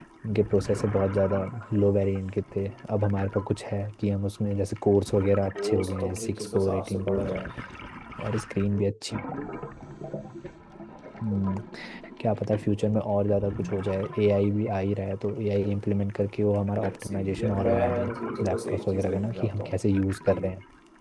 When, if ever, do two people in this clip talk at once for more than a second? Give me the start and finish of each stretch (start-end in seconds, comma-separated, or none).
5.6-7.2, 16.8-18.1, 18.5-19.7